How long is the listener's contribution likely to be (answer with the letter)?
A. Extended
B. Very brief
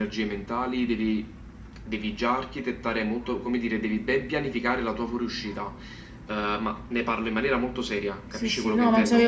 A